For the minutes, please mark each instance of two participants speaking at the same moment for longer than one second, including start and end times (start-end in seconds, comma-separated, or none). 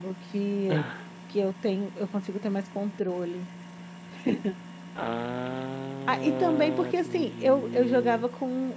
6.1-8.3